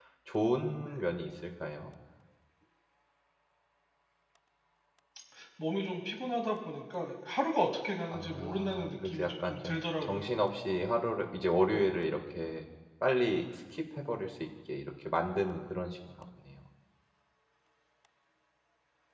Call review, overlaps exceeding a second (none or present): present